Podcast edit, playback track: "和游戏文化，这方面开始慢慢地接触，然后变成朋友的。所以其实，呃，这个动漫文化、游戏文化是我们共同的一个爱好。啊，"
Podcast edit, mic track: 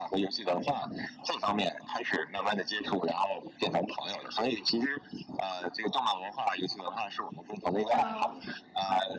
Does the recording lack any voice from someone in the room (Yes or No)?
No